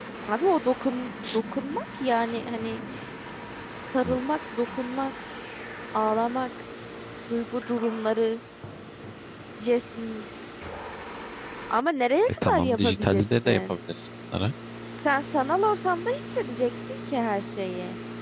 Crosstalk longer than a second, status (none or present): present